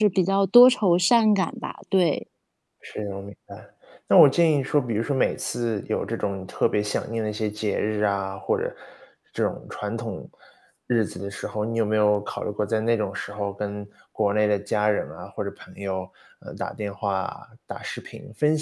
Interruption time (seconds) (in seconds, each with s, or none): none